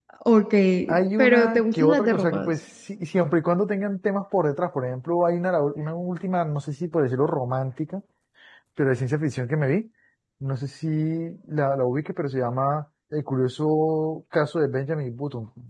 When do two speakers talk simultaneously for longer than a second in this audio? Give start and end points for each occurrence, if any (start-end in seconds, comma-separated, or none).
1.2-2.5